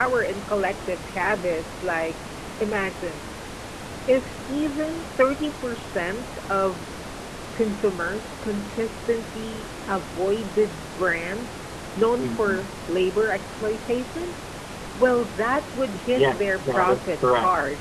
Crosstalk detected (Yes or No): Yes